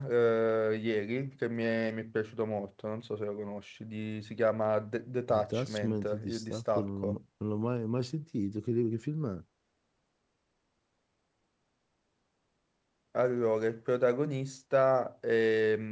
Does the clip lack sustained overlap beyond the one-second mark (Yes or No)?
No